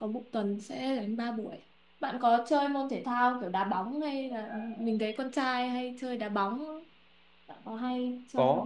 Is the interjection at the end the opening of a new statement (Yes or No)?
Yes